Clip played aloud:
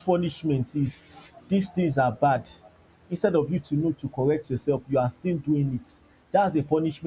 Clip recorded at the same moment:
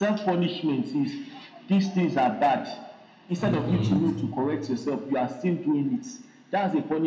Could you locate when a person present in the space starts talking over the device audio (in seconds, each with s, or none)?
3.4 s